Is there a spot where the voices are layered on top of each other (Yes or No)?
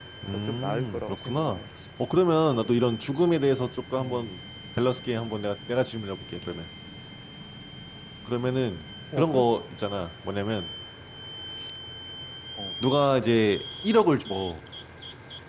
Yes